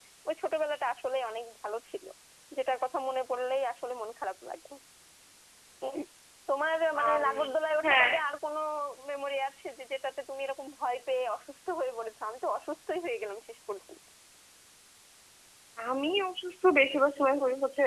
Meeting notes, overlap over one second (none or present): none